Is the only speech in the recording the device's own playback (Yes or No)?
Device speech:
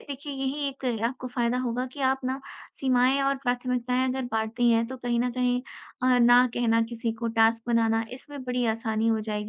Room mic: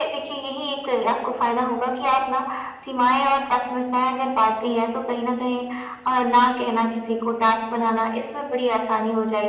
Yes